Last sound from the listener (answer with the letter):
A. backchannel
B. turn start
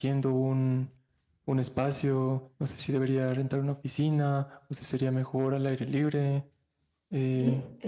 B